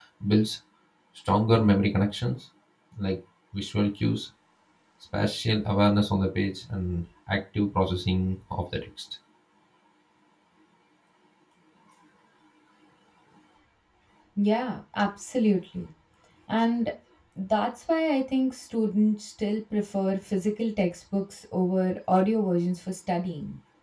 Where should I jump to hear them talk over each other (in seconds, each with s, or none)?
none